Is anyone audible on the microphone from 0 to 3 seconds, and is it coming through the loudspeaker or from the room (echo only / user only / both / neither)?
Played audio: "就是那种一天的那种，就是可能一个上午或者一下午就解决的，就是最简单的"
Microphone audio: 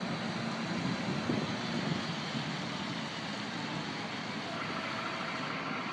neither